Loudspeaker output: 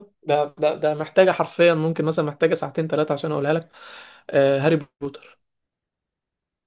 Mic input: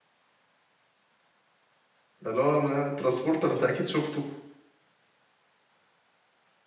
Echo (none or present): none